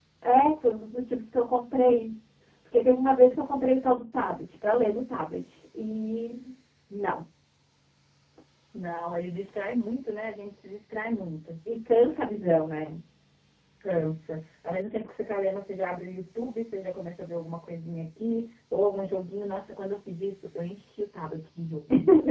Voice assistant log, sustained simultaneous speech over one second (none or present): none